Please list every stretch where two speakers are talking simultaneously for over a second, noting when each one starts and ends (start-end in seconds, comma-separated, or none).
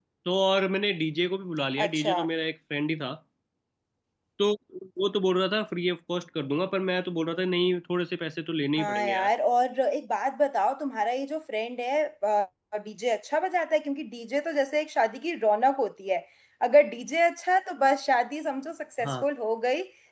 none